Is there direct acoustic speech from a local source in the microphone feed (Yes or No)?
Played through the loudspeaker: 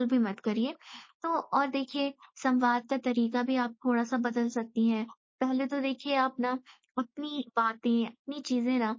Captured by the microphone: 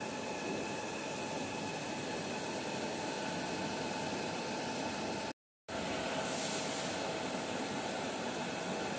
No